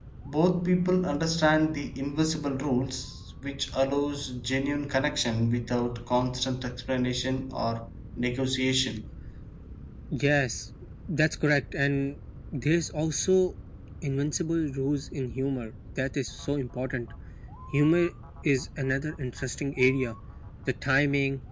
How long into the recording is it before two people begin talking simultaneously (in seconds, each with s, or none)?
none